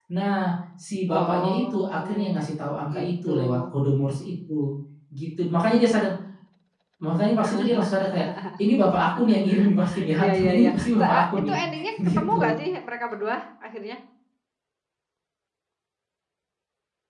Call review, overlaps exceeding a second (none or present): present